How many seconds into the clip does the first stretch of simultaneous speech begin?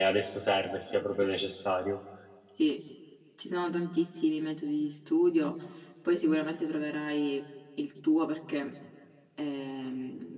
none

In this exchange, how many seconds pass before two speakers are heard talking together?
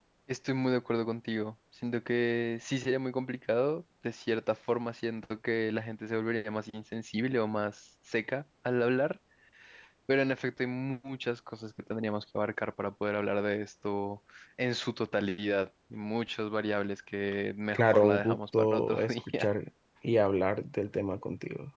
18 s

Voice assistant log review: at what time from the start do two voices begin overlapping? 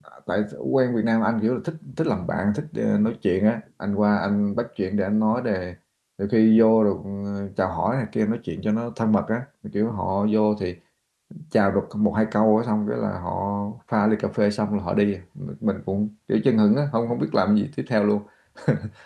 none

